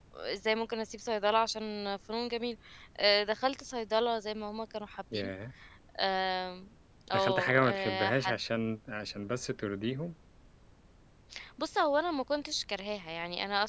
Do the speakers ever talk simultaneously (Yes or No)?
Yes